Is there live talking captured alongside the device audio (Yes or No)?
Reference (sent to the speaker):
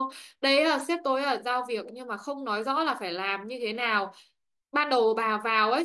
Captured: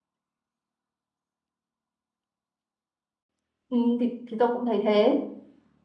Yes